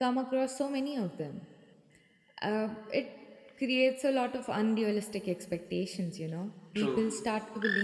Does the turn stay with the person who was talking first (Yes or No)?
Yes